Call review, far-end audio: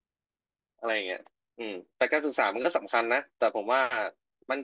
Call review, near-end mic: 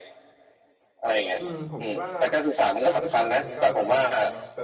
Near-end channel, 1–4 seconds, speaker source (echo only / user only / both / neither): both